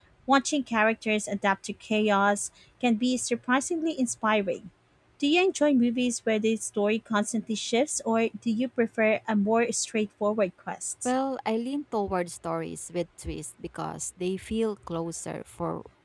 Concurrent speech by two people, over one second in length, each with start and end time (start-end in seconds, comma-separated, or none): none